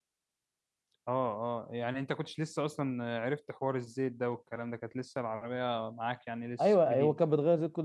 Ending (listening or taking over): taking over